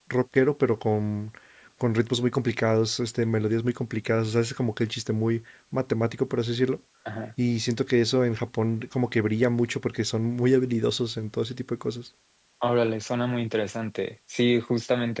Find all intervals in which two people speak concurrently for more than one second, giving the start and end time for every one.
none

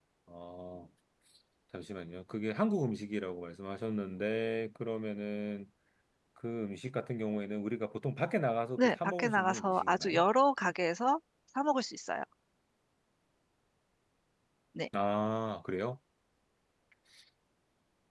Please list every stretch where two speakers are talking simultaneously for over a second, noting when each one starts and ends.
8.8-10.2

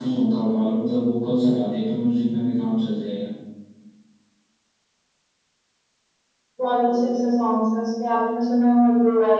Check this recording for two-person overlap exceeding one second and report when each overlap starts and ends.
none

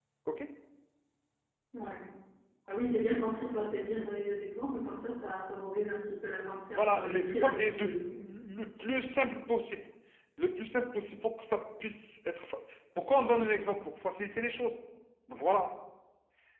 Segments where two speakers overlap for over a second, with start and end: 6.7-8.0

